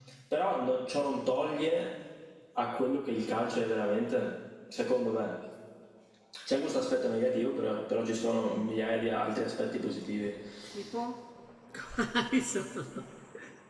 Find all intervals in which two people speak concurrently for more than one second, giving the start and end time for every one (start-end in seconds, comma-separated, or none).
none